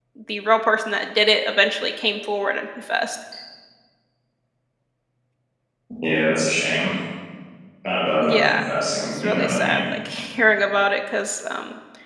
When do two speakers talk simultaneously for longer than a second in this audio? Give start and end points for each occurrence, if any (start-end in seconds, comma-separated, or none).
8.2-9.8